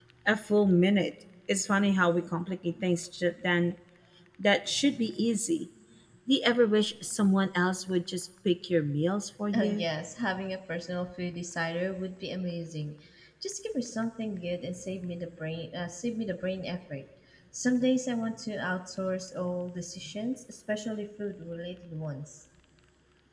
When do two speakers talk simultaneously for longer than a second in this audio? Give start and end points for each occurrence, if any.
none

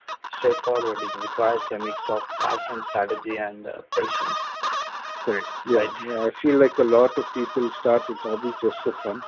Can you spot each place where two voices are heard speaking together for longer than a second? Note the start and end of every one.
none

